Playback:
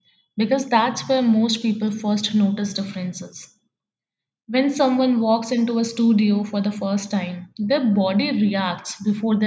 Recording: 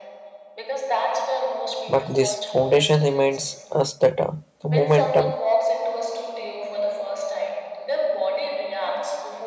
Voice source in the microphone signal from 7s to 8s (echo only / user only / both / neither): echo only